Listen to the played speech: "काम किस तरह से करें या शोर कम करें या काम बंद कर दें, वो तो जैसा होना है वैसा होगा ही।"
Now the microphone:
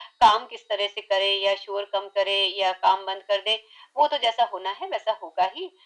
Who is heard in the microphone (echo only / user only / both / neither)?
echo only